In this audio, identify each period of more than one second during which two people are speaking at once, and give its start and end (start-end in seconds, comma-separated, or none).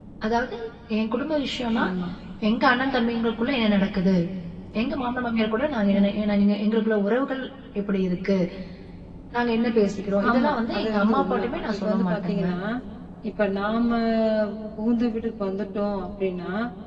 10.3-12.4